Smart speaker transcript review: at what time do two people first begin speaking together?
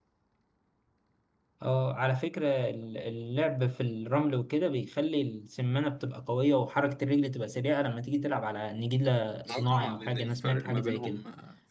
9.4 s

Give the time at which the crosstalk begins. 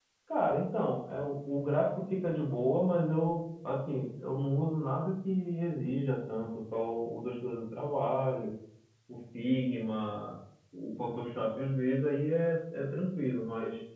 none

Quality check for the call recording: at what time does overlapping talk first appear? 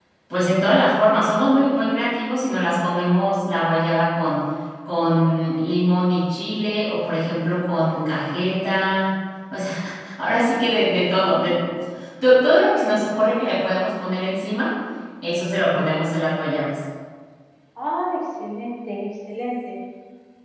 none

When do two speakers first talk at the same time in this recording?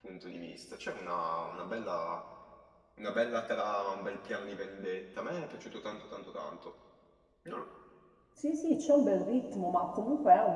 none

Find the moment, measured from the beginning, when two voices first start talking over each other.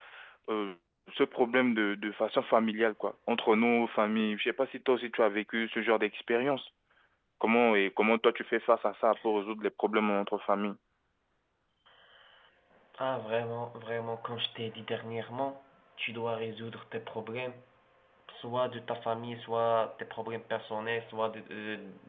none

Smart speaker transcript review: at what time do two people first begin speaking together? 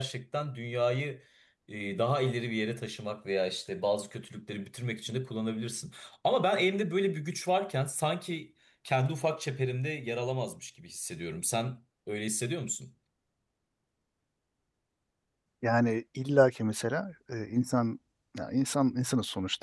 none

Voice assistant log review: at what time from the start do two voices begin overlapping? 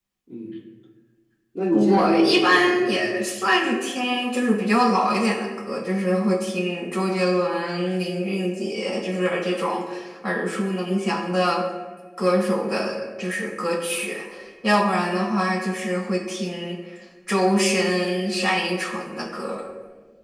1.7 s

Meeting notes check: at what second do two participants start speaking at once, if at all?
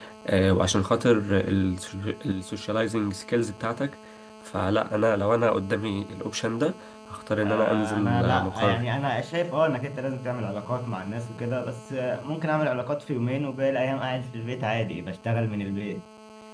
7.4 s

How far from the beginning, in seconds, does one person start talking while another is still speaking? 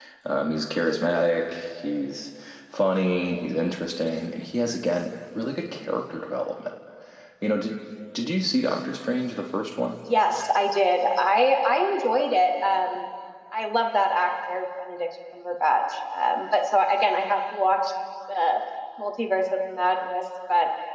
none

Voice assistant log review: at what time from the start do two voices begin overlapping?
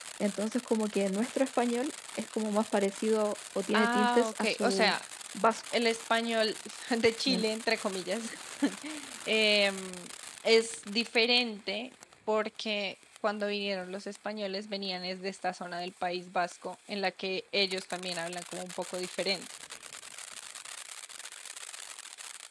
3.7 s

